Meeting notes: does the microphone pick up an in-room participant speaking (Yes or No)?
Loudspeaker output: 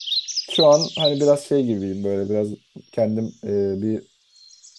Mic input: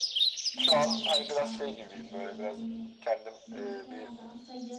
Yes